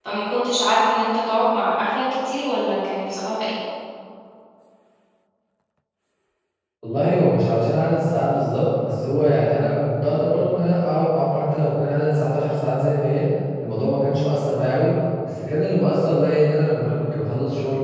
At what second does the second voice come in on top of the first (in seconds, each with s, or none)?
none